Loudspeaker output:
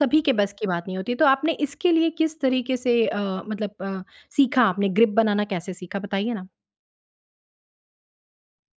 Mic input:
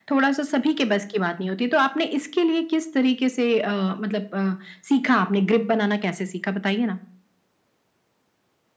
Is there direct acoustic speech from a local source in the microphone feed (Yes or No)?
No